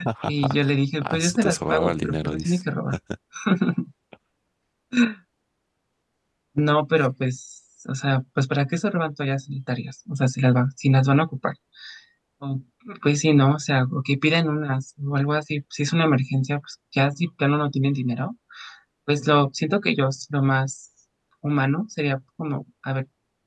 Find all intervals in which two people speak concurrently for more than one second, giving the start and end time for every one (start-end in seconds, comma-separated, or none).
1.0-2.6